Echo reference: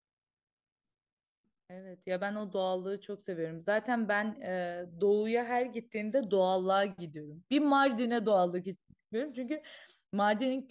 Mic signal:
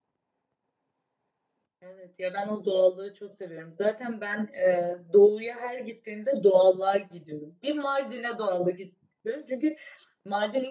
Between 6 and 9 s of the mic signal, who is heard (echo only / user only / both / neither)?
echo only